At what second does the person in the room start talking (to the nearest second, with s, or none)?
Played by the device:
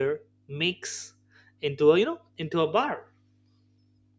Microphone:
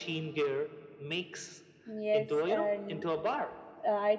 2 s